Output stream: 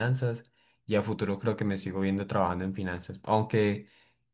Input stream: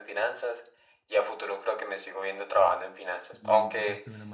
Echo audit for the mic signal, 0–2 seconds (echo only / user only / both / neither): echo only